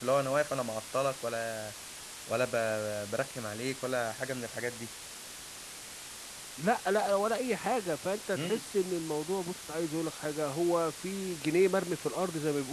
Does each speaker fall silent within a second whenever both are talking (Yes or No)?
Yes